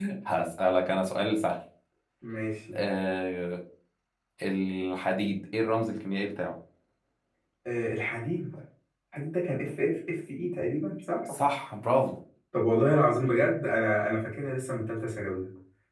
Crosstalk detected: No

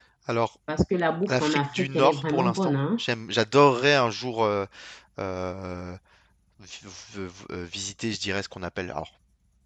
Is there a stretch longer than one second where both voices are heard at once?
Yes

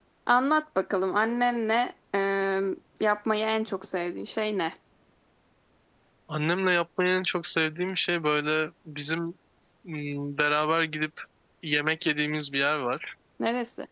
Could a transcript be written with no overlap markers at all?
Yes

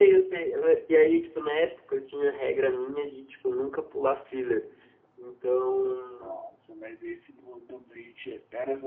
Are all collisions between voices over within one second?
Yes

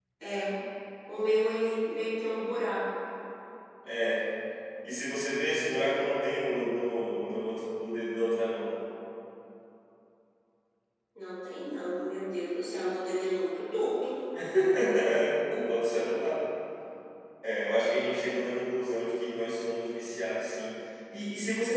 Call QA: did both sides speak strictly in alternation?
Yes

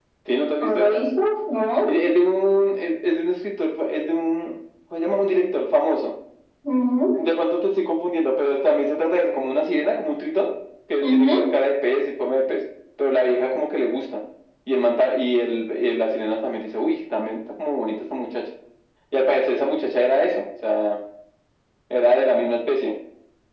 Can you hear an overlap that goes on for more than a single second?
No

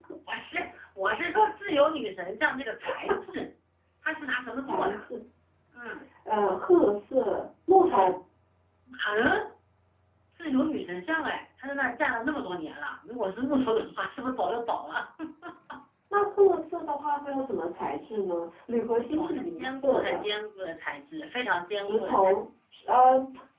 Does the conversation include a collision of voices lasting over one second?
Yes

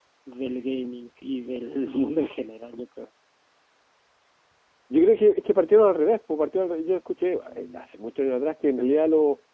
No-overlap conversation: Yes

